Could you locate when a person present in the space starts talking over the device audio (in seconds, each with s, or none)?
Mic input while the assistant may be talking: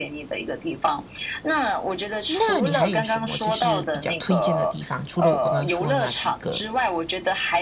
2.3 s